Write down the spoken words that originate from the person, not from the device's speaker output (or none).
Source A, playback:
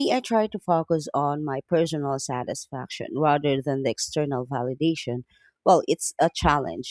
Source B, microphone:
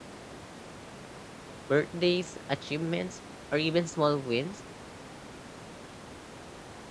Birthdays, achievements, or even small wins